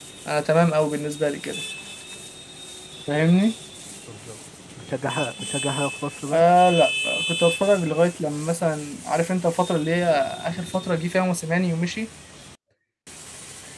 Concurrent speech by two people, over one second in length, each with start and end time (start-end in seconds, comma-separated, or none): none